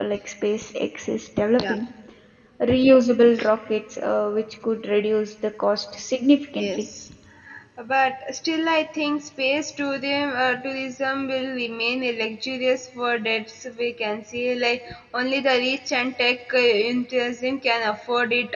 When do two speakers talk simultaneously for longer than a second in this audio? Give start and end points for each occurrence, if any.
none

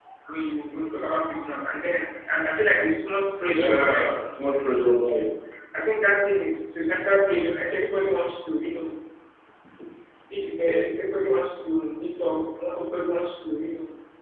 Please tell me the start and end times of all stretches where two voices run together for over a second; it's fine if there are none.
none

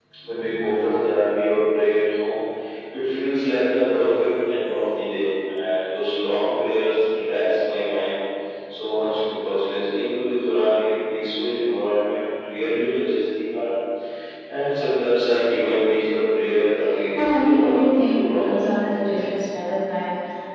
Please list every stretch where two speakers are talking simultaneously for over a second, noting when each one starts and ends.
17.1-18.6

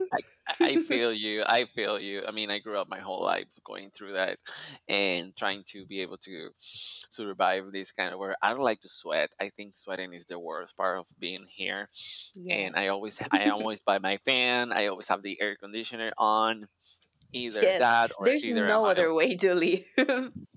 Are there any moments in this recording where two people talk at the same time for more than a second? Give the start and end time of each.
17.6-19.1

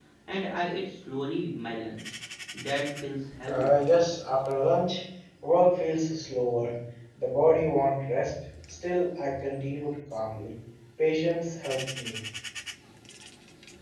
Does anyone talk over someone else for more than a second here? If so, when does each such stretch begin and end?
none

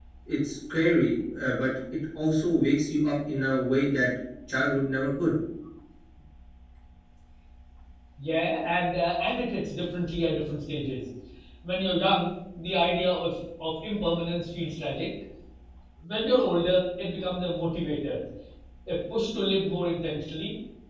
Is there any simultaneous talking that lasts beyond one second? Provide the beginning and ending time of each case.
none

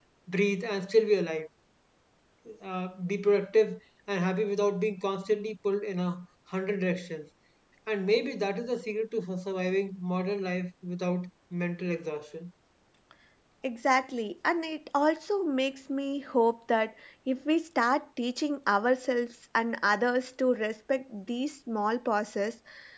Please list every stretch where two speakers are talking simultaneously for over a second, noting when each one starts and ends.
none

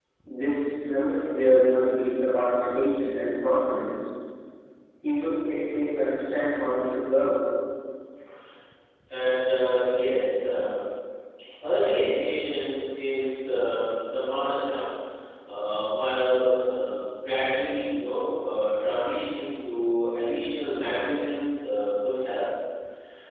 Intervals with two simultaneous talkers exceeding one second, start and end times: none

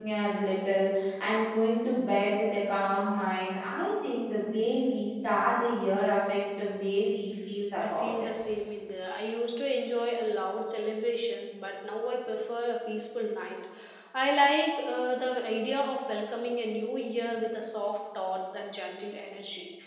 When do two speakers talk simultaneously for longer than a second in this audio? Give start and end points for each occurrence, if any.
none

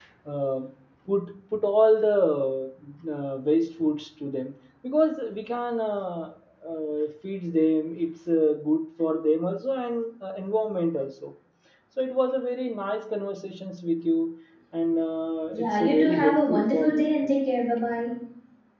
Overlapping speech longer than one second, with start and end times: 15.5-17.4

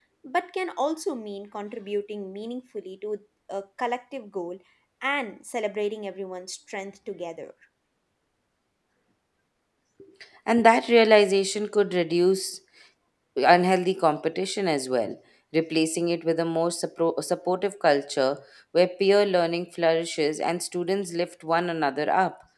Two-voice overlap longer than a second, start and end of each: none

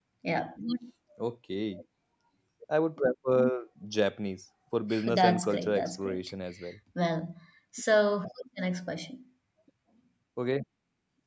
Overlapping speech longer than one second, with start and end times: 5.0-6.3

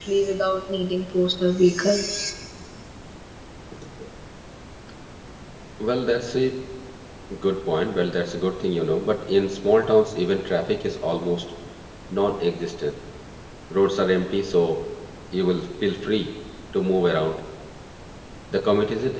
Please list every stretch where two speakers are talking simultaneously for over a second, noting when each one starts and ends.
none

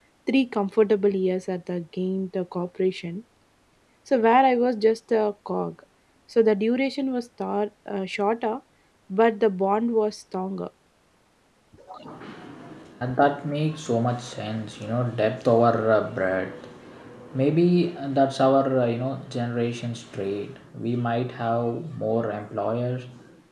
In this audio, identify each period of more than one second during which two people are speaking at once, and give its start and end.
none

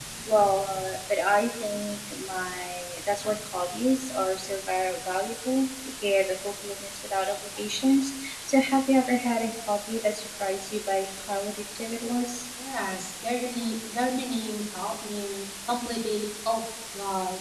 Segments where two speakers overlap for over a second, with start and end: none

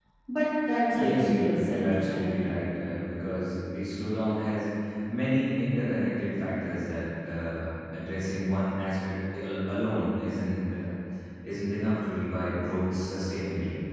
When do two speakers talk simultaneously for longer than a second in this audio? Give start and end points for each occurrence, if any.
0.9-2.4

